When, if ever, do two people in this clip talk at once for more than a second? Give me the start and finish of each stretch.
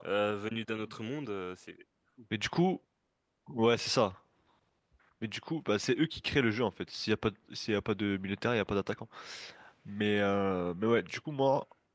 none

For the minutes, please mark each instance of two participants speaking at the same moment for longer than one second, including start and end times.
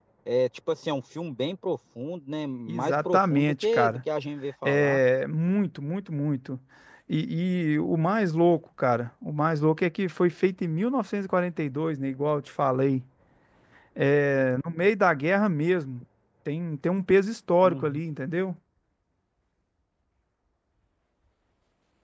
2.7-4.0

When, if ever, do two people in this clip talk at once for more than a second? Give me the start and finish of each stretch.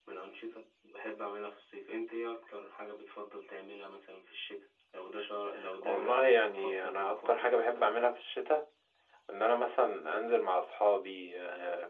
5.8-7.9

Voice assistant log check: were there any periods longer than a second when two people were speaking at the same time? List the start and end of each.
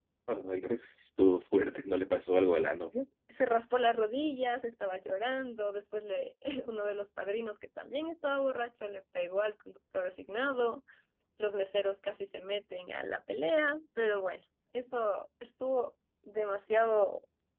none

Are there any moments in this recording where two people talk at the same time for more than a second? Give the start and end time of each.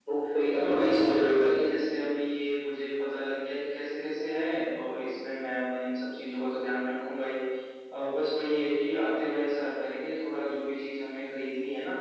0.5-1.8

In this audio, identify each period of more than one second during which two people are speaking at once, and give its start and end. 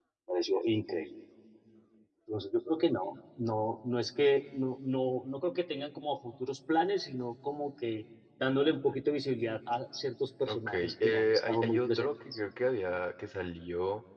10.5-12.4

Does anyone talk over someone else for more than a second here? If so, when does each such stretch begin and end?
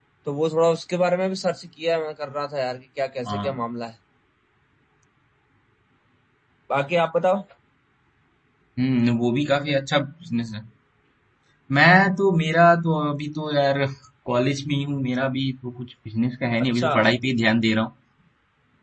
none

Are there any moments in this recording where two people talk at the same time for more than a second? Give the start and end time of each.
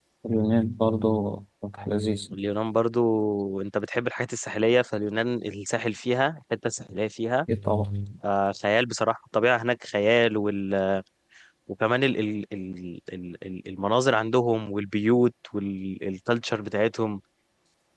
none

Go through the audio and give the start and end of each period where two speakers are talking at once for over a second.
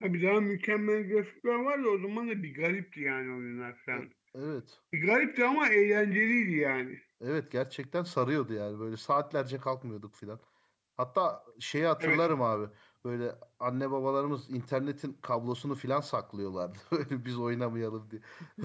none

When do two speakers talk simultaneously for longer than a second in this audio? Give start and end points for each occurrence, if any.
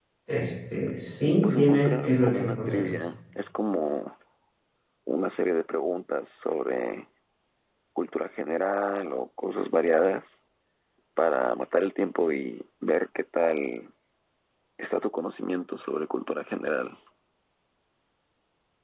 1.4-2.9

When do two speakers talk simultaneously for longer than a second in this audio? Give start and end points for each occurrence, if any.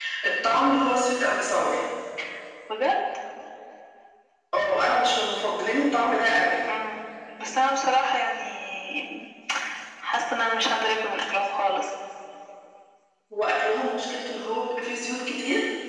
none

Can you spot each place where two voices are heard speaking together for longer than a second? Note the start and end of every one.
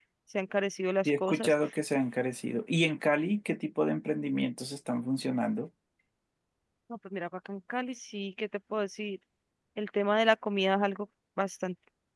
none

